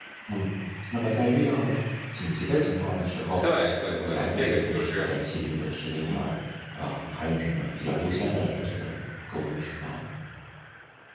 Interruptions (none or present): present